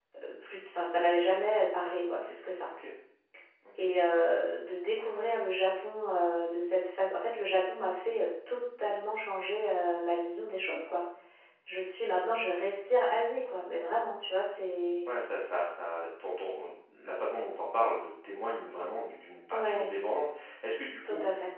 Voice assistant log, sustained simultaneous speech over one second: none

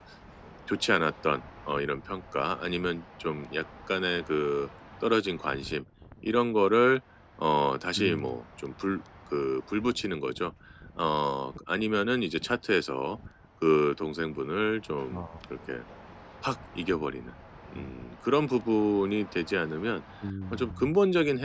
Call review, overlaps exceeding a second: none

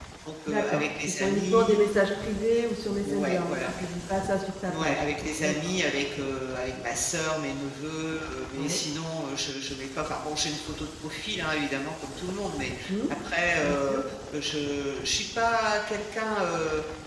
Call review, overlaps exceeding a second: present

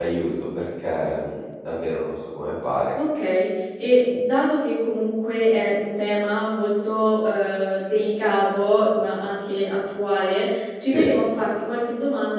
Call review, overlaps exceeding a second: none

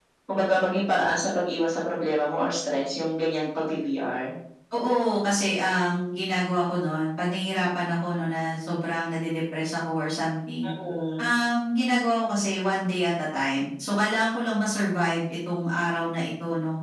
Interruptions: none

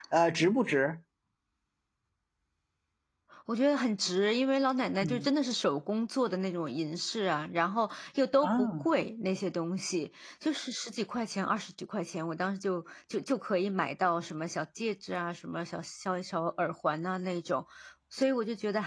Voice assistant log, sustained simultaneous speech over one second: none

